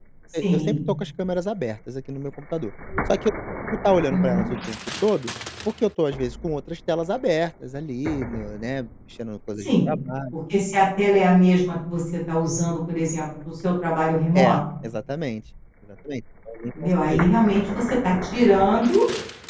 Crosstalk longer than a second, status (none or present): none